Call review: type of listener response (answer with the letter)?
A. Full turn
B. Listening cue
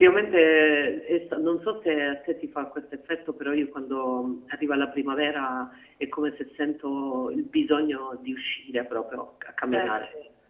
A